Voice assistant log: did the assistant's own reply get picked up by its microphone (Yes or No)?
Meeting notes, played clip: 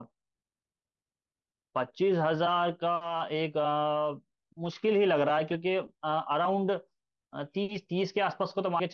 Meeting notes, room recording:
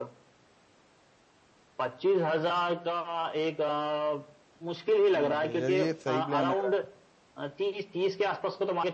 Yes